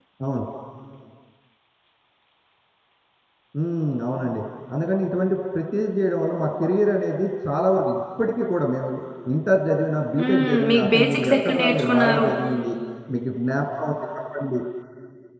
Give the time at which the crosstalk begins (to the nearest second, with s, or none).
10 s